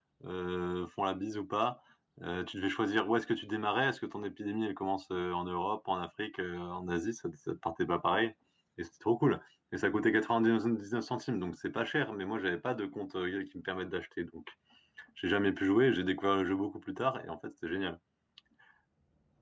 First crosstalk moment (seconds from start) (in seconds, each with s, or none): none